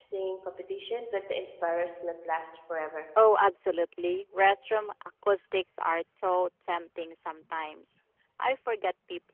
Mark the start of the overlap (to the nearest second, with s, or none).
none